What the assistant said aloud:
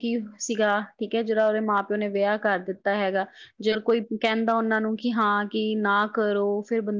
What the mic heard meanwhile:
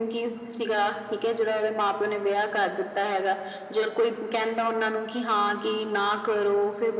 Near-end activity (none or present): none